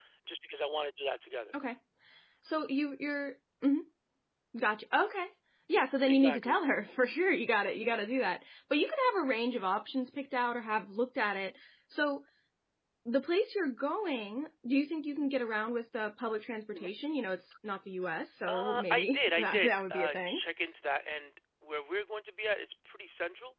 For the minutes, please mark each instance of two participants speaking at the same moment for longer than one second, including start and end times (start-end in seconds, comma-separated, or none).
18.5-20.4